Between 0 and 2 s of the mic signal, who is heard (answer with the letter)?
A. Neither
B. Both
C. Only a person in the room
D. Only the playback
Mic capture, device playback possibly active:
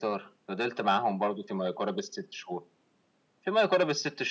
D